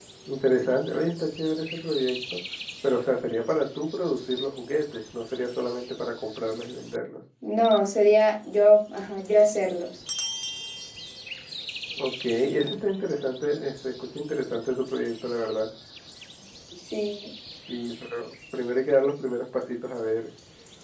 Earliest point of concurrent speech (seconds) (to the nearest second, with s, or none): none